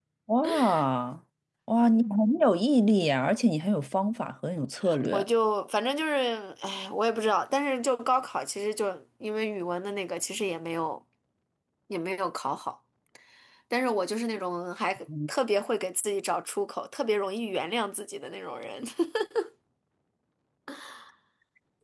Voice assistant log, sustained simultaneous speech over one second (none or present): none